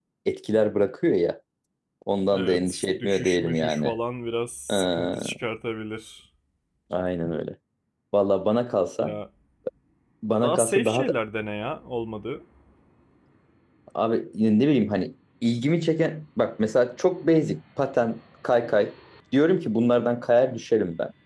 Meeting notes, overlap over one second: present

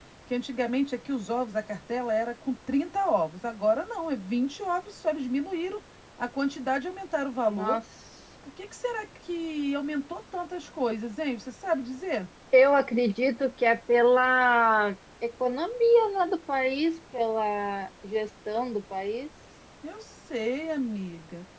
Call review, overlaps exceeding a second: none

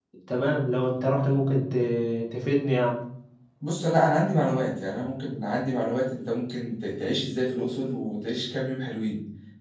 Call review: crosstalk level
none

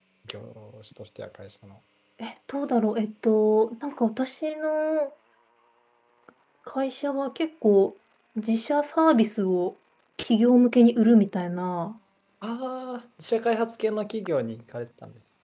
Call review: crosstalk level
none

